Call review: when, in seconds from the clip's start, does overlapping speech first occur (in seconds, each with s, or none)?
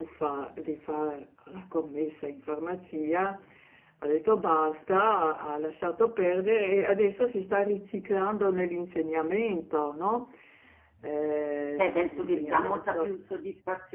11.8 s